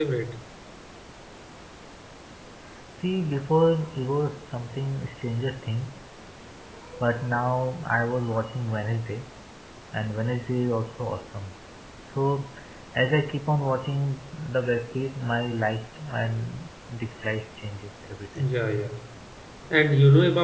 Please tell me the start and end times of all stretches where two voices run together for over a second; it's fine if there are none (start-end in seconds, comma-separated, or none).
none